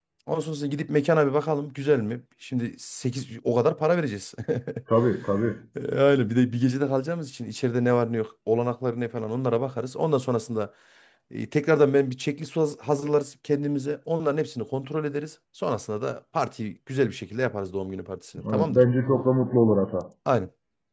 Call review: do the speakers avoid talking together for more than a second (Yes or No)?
Yes